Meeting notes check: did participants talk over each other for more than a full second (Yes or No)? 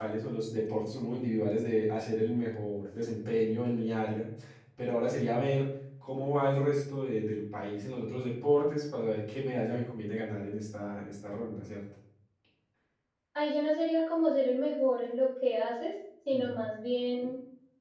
No